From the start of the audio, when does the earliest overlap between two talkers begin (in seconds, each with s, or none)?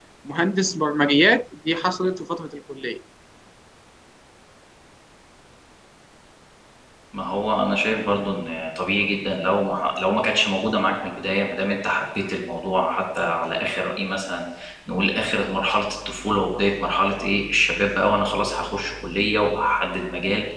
none